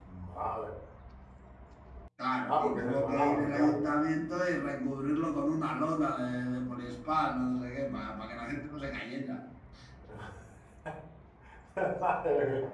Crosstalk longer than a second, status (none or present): present